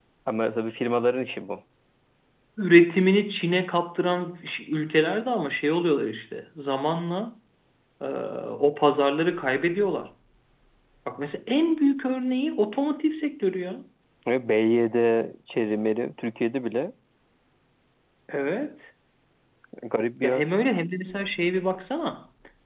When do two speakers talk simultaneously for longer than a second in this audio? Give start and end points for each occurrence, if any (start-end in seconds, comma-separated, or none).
none